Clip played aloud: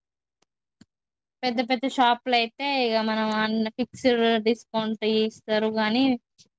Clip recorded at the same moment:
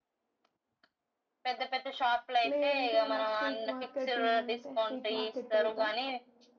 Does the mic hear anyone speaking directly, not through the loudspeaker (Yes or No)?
Yes